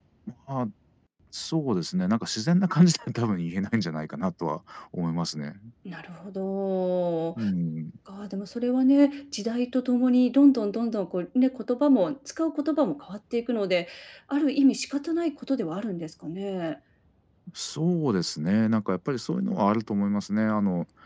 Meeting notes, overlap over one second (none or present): none